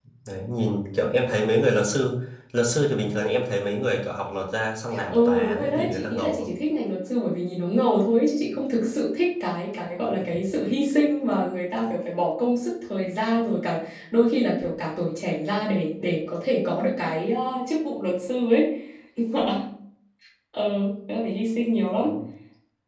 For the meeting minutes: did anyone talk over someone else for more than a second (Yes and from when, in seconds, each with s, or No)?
Yes, from 4.9 s